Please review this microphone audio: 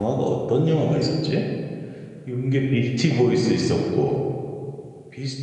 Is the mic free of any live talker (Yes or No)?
No